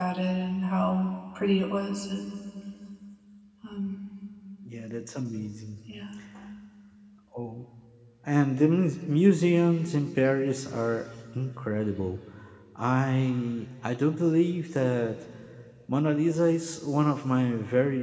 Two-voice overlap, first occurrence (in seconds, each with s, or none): none